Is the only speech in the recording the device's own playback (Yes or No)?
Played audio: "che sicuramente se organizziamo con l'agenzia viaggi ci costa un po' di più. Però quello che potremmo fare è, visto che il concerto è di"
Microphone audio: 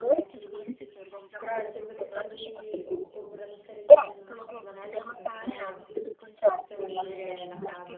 No